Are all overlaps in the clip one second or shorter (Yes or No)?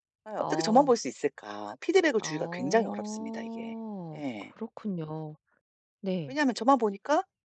No